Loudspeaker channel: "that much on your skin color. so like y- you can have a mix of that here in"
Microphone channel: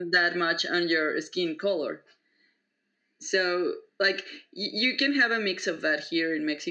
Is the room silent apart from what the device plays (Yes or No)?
Yes